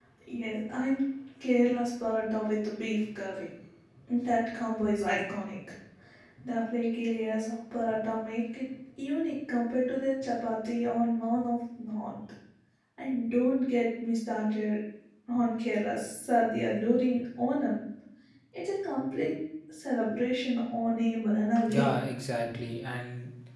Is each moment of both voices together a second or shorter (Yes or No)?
Yes